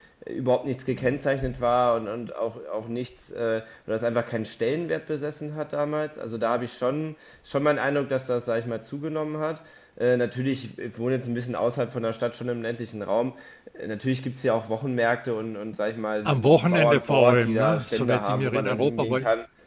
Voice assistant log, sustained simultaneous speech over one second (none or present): present